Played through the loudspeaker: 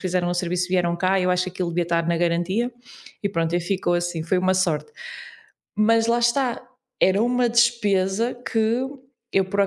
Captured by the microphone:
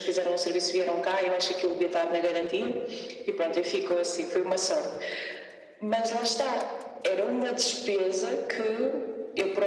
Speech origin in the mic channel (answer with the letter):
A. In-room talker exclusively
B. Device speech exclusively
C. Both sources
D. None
B